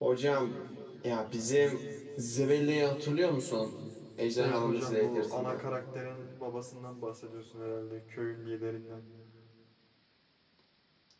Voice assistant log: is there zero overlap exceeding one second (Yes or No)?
No